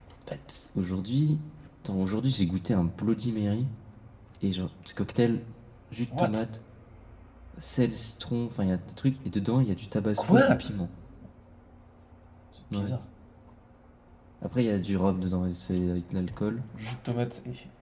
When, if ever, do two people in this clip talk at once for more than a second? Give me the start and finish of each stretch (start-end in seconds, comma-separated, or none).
none